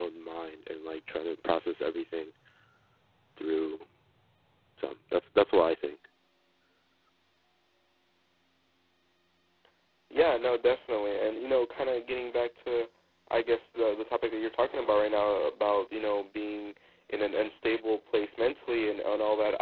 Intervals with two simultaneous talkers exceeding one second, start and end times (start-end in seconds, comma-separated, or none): none